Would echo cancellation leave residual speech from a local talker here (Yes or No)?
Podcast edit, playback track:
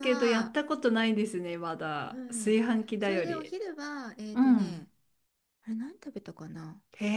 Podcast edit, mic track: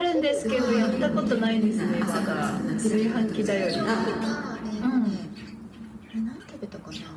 Yes